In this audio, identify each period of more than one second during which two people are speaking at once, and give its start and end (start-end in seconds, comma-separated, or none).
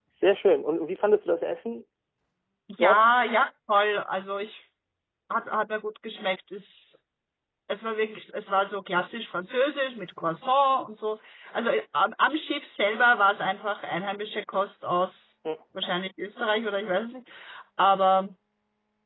none